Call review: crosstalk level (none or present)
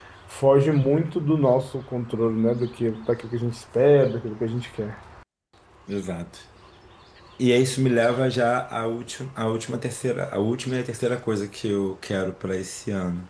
none